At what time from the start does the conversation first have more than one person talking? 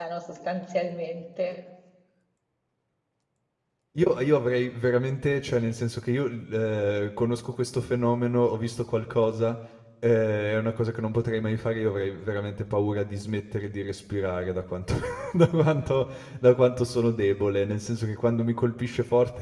none

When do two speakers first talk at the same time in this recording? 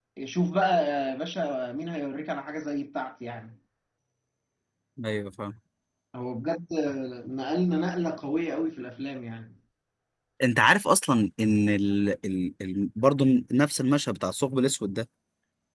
none

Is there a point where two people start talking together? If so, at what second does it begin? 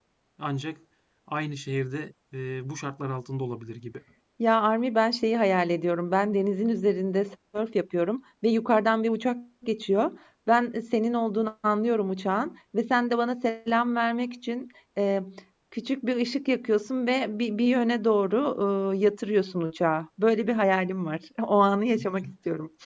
none

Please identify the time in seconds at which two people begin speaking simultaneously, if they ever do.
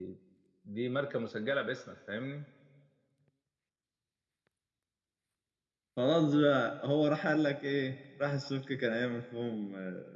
none

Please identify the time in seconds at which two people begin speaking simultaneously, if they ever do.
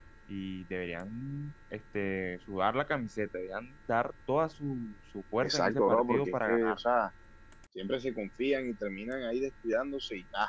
5.4 s

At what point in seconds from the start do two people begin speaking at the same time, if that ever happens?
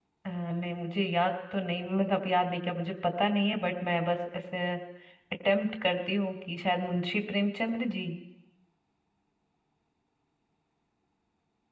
none

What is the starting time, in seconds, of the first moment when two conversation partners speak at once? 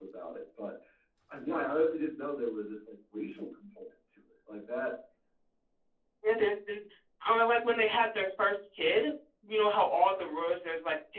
none

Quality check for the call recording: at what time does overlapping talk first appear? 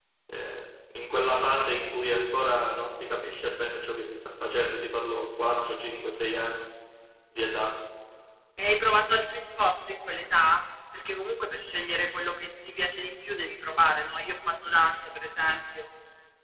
none

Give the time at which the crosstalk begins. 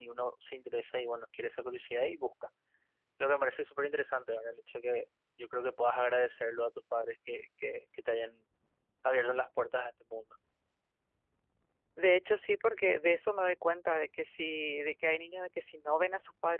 none

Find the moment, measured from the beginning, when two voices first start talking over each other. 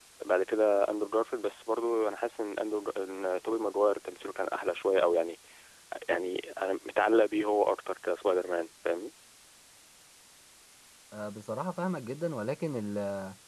none

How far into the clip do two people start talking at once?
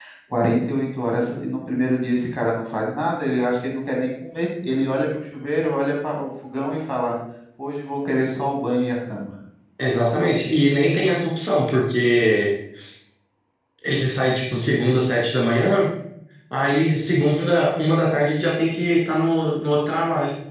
none

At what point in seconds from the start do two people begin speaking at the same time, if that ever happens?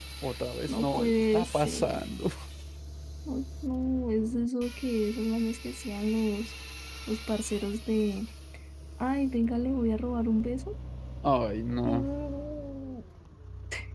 0.7 s

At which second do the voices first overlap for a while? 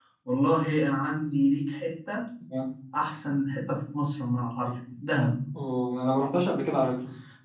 none

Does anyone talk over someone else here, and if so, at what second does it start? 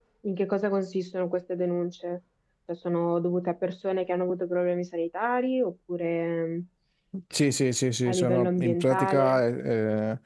8.1 s

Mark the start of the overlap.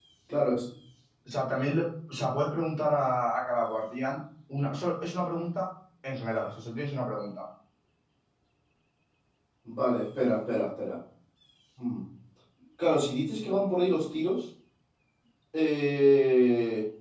none

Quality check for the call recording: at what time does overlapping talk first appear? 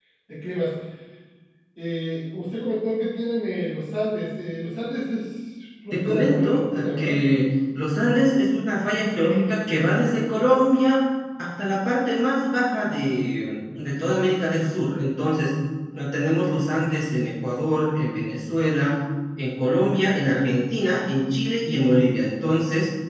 5.9 s

